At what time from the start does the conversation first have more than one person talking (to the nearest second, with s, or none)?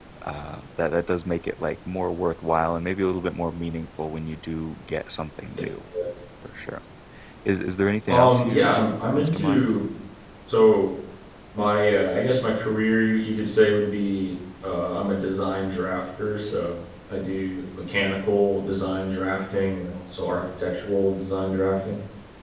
8 s